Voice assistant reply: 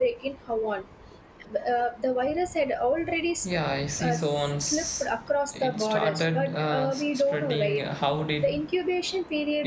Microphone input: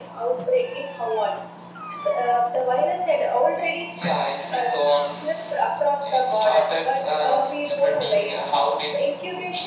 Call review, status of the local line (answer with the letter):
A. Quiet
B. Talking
A